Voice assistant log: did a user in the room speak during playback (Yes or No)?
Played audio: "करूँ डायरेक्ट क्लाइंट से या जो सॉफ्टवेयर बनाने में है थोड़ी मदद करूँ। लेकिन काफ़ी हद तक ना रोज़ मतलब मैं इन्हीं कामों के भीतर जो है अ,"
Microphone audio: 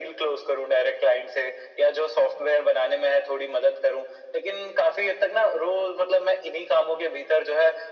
No